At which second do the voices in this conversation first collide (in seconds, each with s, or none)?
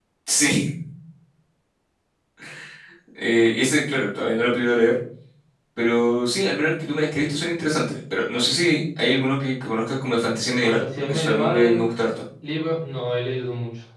10.6 s